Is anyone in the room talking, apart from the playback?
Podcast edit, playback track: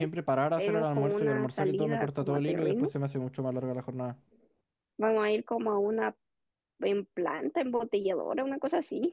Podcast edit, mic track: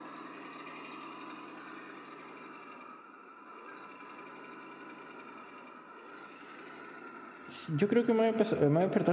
Yes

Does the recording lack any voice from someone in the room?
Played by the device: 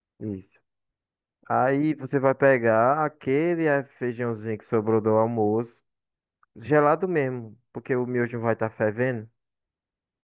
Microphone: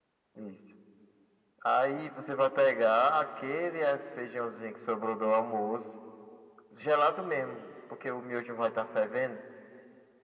Yes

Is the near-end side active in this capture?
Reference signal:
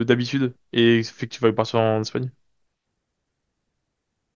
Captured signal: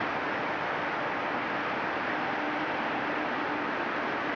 No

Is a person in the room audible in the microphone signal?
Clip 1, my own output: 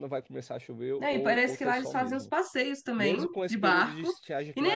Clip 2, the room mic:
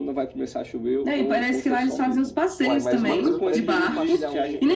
Yes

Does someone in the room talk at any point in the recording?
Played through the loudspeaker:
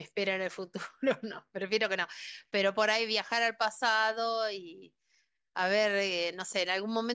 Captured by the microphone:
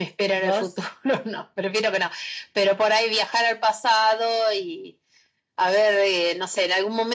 Yes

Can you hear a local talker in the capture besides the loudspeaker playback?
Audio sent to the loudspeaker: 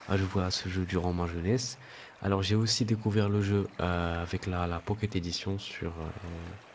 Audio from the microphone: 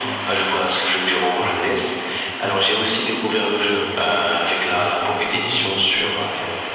Yes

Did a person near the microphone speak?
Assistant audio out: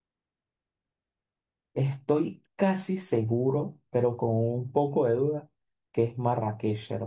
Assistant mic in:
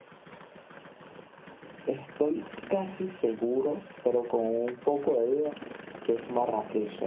No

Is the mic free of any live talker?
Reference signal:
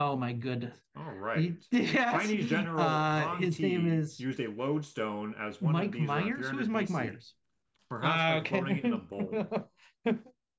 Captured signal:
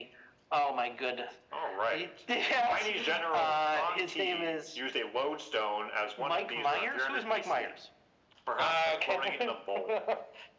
Yes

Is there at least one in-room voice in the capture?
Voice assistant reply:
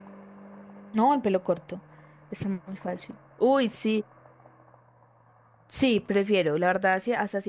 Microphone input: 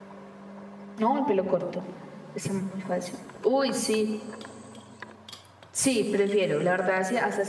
No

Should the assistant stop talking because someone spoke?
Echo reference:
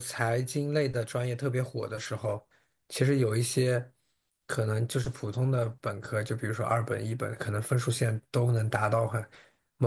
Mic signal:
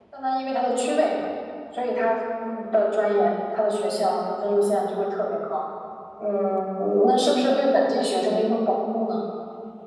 Yes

